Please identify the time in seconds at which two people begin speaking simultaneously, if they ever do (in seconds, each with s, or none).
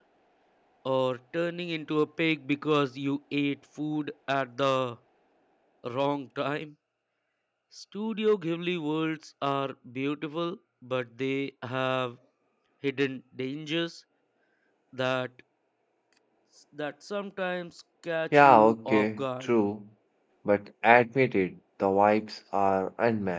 18.3 s